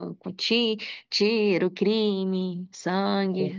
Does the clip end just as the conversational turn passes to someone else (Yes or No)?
Yes